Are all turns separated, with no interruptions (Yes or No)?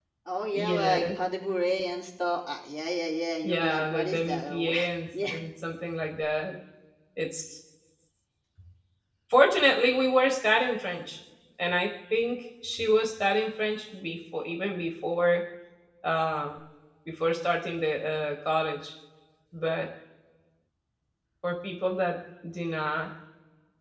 No